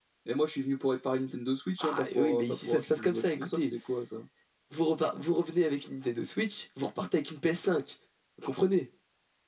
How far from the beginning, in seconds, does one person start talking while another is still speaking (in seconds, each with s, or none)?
1.8 s